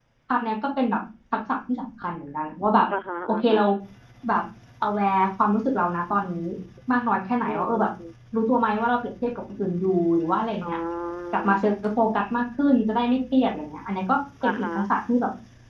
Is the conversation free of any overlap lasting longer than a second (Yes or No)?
Yes